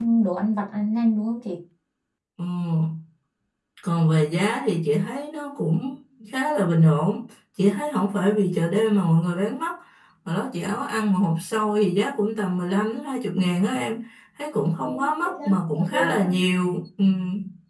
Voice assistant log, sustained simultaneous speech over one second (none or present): present